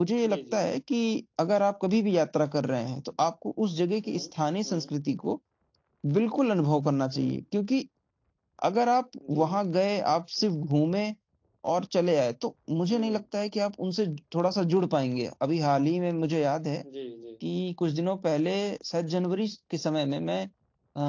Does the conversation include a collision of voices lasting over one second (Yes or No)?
No